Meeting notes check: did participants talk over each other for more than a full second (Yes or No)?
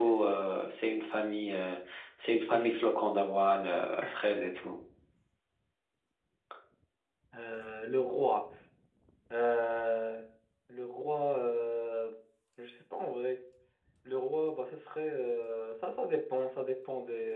No